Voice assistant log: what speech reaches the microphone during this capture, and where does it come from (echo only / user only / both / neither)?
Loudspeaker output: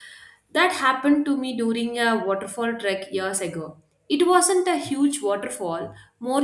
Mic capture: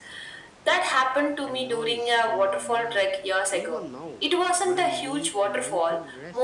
both